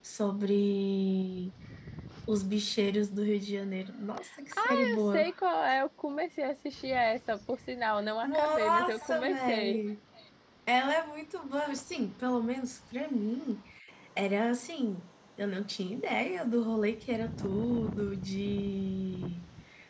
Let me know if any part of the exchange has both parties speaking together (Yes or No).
Yes